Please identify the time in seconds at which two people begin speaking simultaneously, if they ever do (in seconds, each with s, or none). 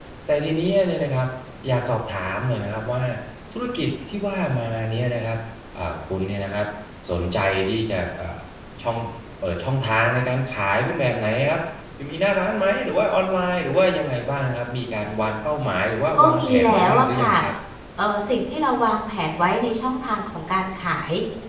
16.1 s